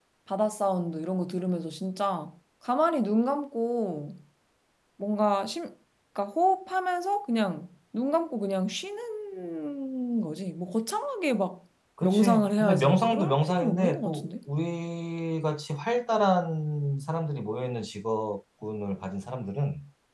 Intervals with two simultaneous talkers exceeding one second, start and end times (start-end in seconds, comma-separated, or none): 12.0-14.3